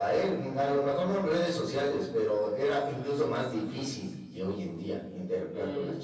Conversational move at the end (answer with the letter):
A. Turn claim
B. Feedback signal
A